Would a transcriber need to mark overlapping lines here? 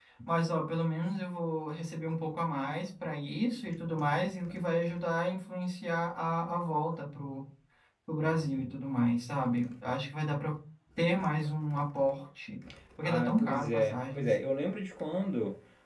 Yes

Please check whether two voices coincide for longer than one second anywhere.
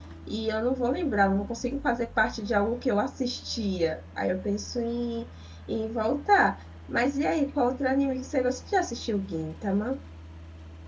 No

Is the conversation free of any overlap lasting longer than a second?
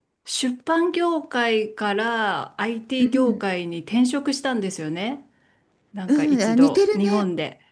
No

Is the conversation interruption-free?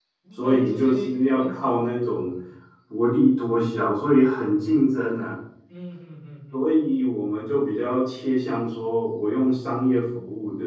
No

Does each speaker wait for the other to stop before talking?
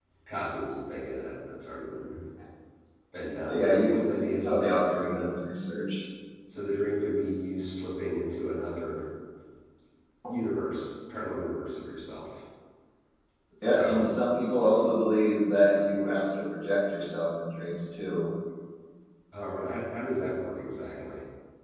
No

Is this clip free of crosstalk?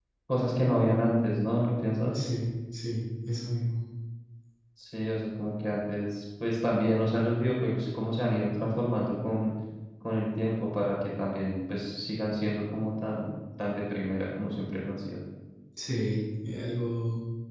Yes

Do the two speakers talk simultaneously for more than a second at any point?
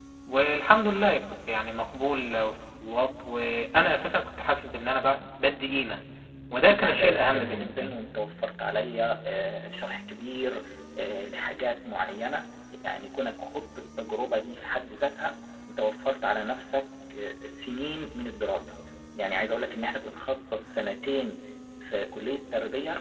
Yes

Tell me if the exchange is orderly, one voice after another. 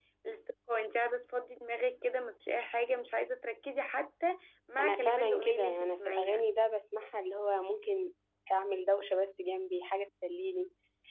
No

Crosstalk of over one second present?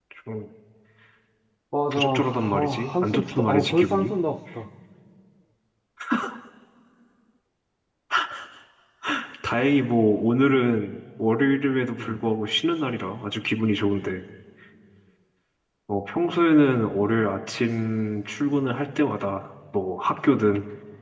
Yes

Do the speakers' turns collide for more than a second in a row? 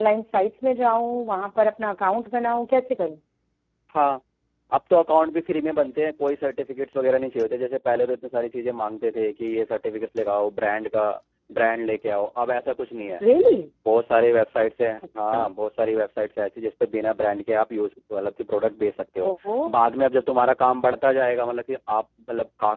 No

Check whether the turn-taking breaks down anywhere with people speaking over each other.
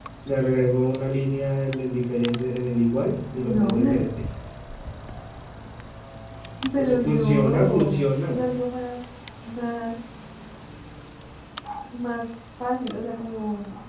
Yes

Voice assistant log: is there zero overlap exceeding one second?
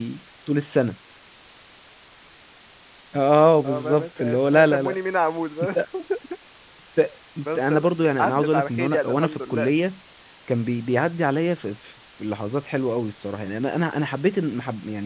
No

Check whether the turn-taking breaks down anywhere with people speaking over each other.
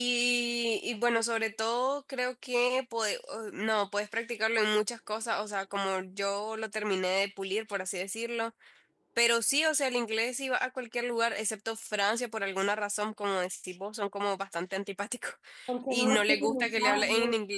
Yes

